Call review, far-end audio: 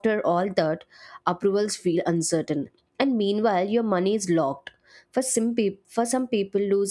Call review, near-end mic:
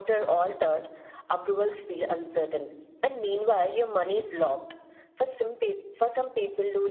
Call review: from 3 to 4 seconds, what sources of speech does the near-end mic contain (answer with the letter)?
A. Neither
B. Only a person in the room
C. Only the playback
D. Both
C